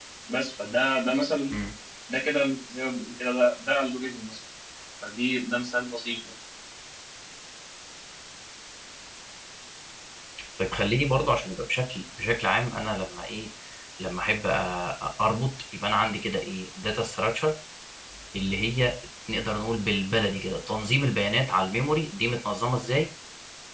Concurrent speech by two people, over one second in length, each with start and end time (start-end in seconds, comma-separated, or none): none